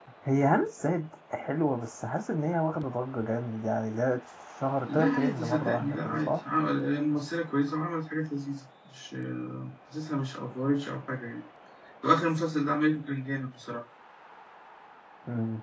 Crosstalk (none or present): present